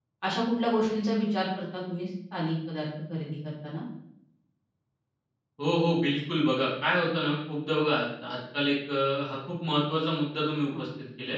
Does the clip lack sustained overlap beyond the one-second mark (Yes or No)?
Yes